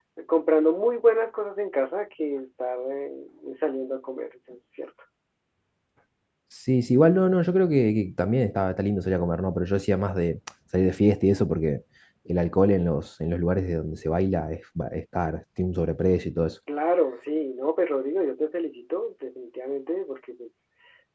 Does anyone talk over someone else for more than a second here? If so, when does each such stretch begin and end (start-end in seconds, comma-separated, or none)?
none